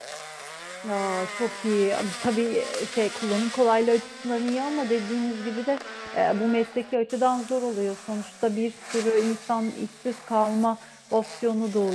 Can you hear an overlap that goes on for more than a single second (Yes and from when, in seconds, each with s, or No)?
No